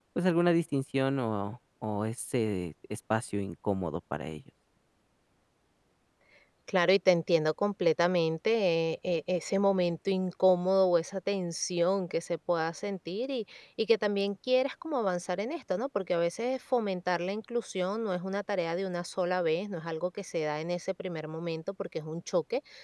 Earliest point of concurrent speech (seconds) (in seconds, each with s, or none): none